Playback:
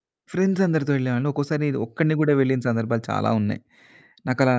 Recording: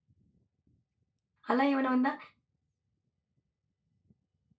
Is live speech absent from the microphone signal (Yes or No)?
No